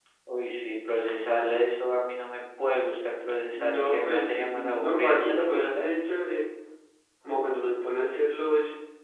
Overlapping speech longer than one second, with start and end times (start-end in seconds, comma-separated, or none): 3.5-5.9